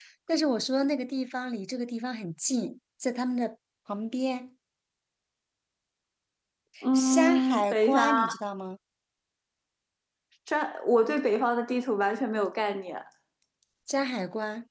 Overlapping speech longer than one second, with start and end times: 7.0-8.2

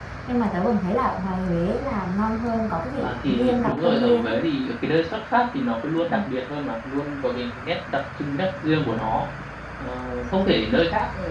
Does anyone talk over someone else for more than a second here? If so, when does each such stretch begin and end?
3.0-4.3

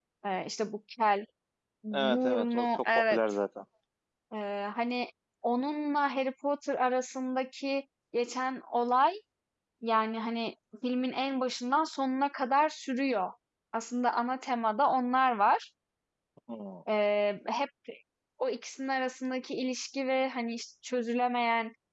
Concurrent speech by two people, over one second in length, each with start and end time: 1.9-3.2

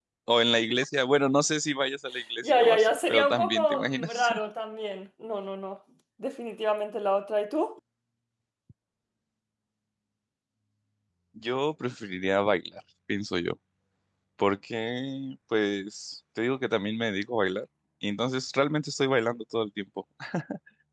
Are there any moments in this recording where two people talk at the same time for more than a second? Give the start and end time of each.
2.4-4.3

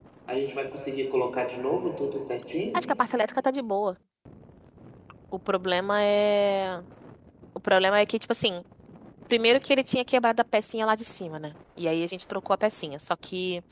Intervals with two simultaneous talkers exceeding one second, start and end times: none

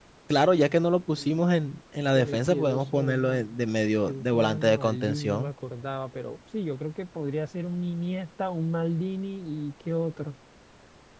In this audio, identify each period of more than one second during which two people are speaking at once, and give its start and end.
2.1-3.6, 4.1-5.5

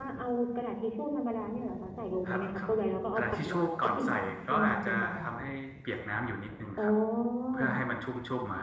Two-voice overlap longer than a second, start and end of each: 3.2-5.2

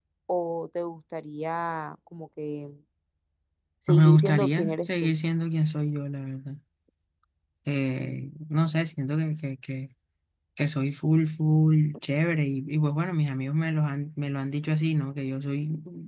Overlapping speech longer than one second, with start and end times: 3.9-5.2

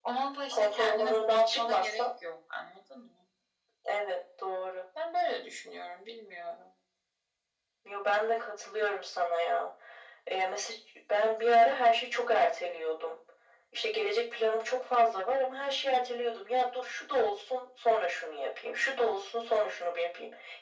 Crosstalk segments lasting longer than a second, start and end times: 0.5-2.0

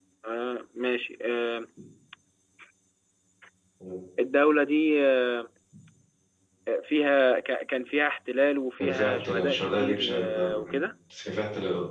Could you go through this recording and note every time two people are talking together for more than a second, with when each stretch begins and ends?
8.8-10.8

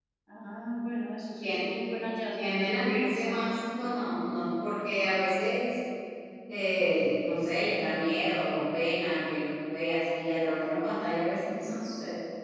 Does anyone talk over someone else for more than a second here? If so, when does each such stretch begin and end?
2.3-3.6

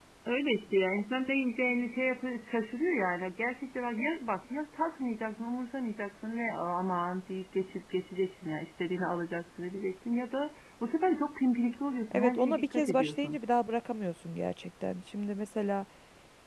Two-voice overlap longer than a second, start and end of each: 12.1-13.4

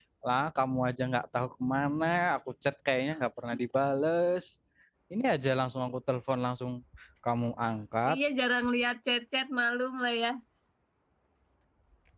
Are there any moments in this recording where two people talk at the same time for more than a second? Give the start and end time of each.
none

